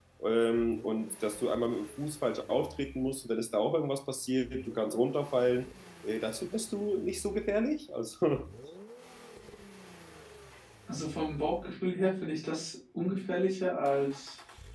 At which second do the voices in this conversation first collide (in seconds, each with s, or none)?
none